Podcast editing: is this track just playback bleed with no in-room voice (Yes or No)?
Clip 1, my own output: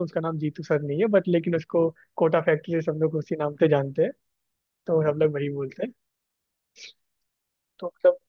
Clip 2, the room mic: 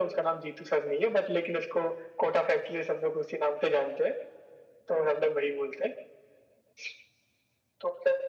Yes